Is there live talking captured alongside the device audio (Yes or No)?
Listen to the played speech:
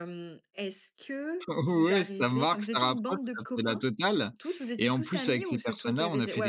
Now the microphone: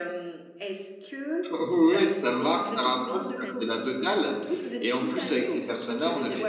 Yes